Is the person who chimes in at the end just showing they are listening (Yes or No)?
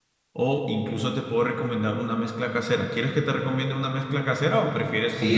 No